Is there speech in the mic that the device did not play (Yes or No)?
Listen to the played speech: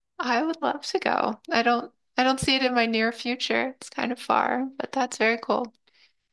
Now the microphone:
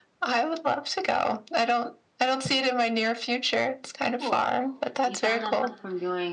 Yes